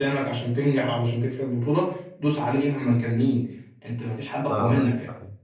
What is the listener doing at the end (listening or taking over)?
taking over